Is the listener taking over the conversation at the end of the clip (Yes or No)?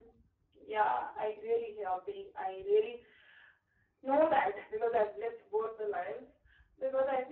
No